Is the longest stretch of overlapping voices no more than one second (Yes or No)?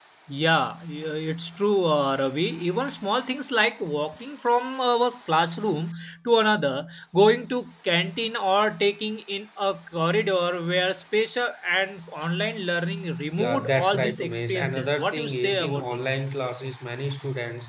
No